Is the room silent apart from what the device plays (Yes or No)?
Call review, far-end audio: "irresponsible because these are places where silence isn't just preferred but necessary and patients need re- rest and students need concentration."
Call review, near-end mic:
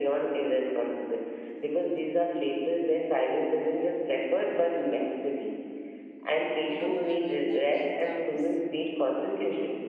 No